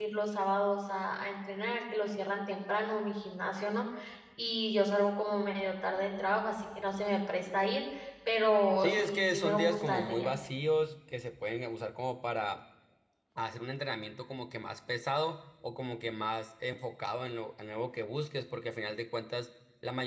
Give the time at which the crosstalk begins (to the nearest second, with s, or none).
9 s